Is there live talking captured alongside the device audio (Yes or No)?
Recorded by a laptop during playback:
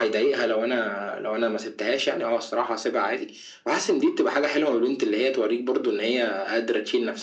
No